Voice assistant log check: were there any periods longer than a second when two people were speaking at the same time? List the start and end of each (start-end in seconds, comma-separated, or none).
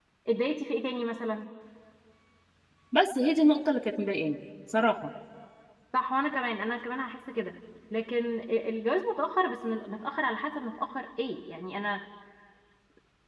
none